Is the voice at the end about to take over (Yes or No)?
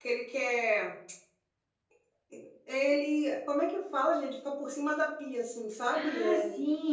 Yes